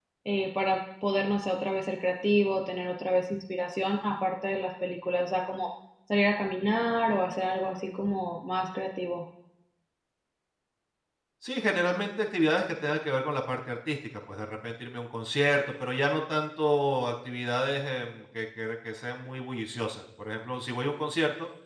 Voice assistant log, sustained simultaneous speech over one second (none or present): none